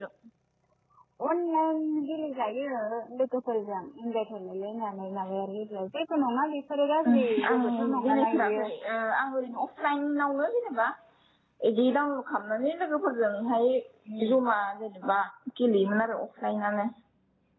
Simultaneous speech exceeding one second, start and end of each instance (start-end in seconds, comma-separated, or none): 7.1-8.7